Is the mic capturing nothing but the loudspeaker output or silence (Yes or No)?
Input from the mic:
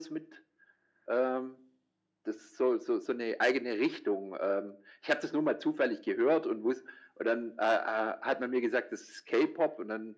Yes